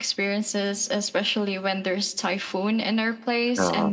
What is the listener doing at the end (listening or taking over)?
listening